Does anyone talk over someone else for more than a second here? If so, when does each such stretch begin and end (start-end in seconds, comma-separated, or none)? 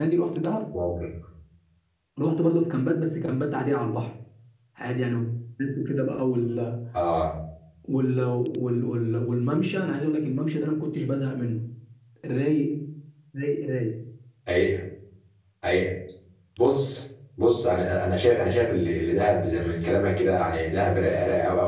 none